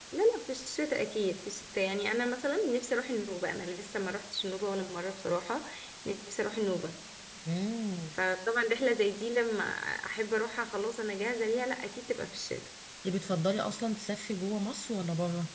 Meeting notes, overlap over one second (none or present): none